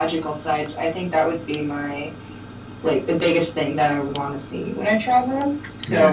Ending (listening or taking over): listening